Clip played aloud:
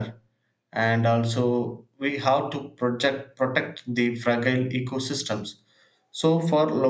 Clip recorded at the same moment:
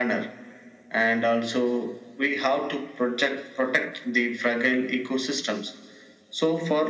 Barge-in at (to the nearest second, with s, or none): none